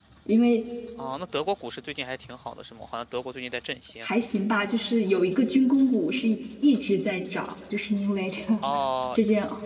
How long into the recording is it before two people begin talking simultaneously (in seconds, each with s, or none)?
none